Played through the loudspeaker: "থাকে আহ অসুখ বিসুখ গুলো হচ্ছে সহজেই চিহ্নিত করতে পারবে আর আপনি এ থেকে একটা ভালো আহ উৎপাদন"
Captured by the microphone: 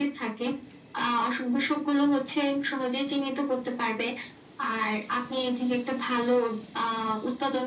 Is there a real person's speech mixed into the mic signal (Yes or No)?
No